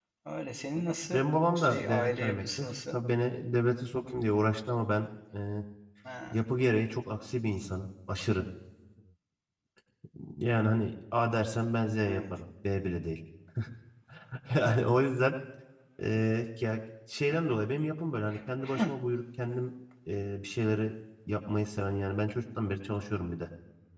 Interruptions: present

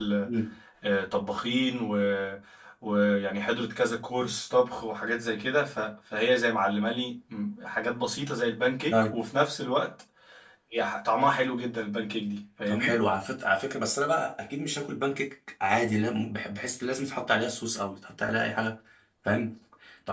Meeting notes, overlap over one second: none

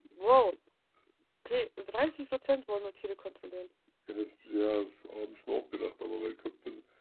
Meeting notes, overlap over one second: none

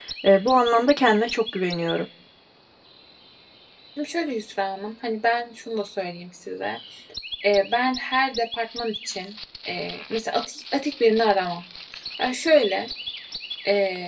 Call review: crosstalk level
none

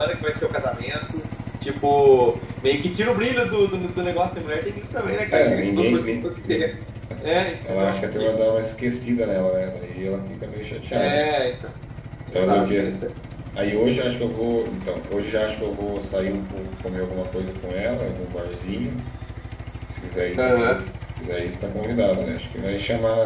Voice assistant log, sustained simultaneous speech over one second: present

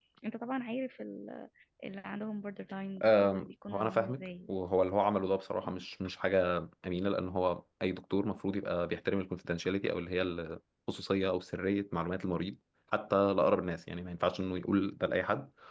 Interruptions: present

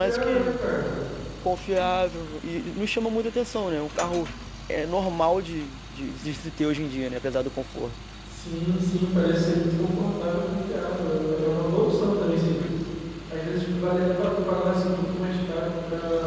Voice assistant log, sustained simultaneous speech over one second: none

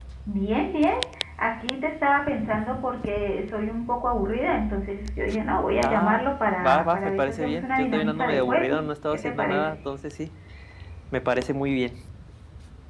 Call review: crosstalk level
present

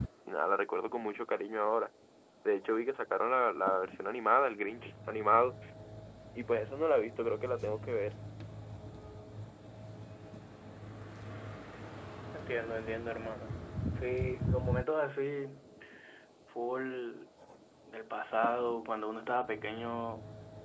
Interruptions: none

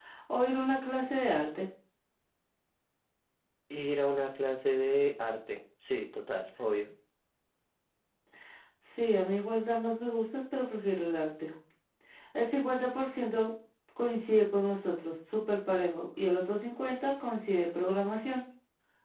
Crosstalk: none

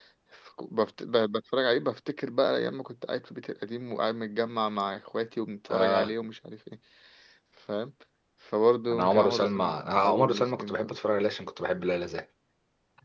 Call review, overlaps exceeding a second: present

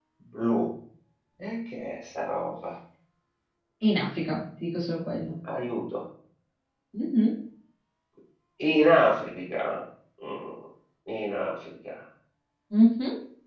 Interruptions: none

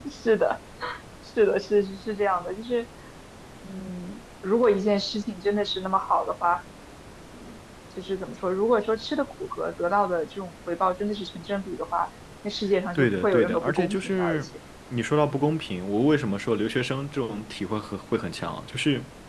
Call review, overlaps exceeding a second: present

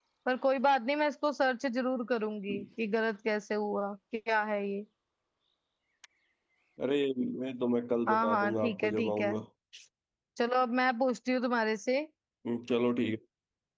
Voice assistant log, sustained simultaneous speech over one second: present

